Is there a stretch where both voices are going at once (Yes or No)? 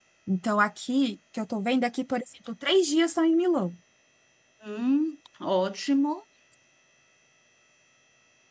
No